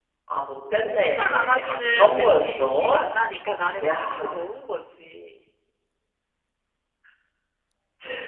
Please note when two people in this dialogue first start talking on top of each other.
1.0 s

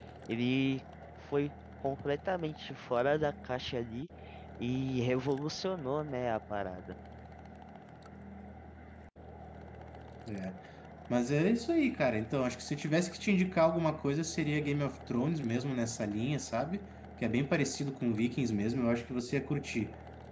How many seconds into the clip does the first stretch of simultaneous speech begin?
none

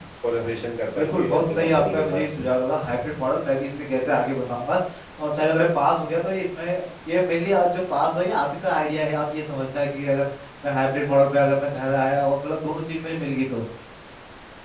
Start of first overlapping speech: 1.0 s

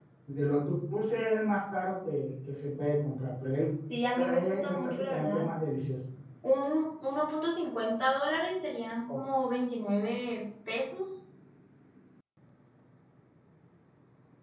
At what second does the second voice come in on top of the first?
4.2 s

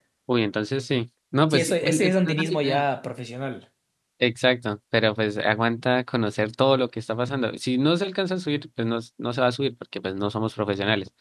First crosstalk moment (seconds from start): 1.5 s

